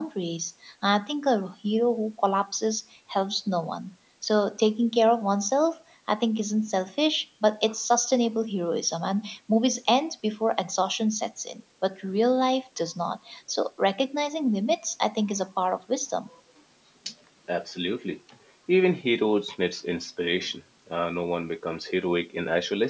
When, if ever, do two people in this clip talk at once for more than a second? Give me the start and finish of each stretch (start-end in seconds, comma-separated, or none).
none